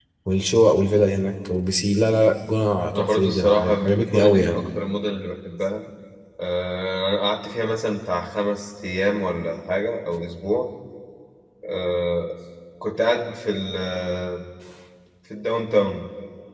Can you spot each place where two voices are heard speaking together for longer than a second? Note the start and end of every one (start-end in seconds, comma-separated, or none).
2.9-4.6